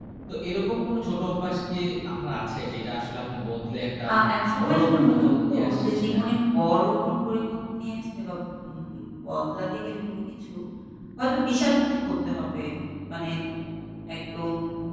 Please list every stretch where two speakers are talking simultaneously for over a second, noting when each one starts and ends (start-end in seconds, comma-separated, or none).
4.6-6.3